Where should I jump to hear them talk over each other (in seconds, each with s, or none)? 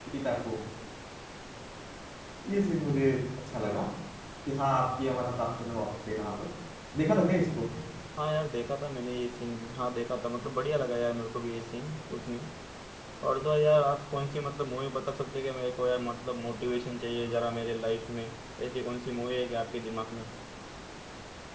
none